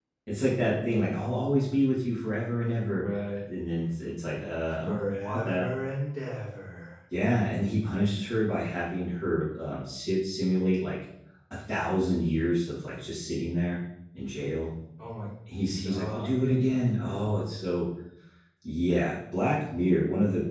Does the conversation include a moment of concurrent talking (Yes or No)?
Yes